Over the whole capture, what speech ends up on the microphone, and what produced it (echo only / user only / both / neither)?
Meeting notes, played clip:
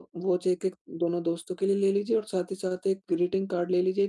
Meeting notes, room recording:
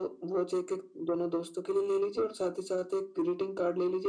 echo only